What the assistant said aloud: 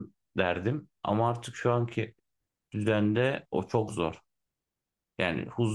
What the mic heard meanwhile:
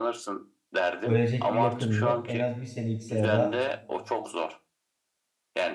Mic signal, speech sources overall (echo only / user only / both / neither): both